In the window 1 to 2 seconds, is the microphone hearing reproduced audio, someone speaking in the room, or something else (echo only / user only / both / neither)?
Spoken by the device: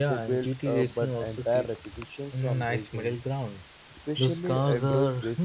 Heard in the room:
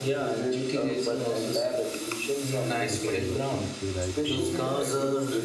echo only